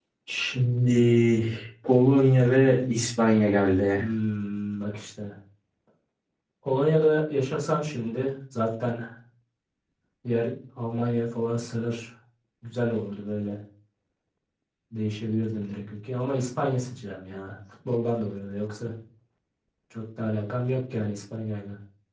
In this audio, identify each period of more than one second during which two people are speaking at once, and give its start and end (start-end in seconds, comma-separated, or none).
none